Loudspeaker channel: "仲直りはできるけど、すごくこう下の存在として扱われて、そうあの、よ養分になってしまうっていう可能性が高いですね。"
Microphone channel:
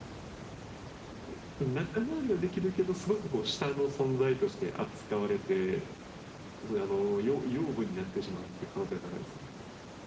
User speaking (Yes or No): No